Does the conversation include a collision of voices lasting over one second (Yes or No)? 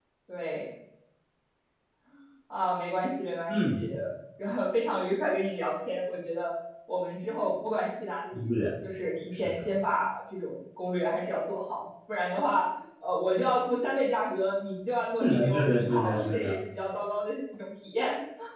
Yes